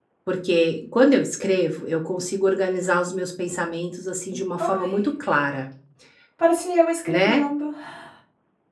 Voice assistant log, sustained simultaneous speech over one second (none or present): none